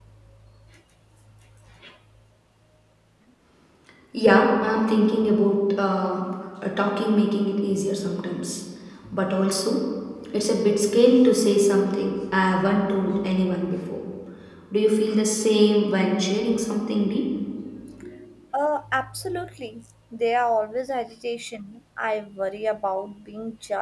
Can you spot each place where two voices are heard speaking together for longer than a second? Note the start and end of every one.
none

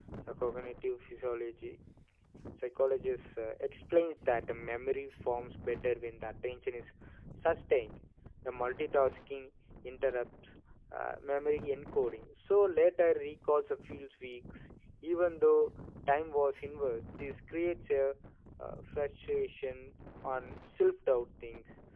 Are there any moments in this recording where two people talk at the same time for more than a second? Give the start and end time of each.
none

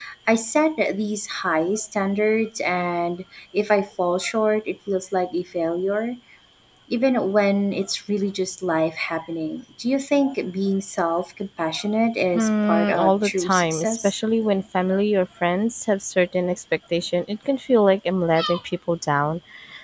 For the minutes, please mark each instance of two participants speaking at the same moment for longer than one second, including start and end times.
12.3-14.1

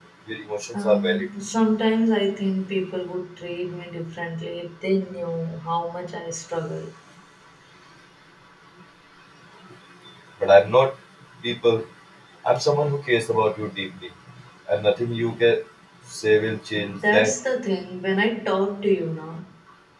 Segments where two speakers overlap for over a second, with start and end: none

